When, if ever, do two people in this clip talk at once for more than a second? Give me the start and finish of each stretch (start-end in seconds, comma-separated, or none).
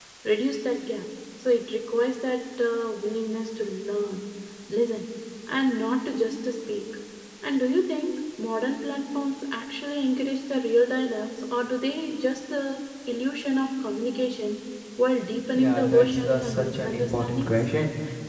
15.6-17.5